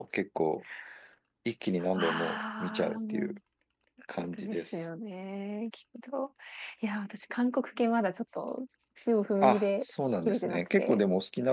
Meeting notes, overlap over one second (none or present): present